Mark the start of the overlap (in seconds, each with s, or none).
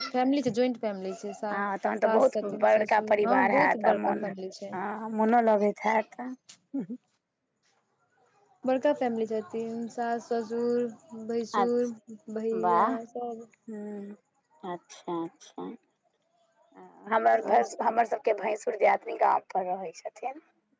2.0 s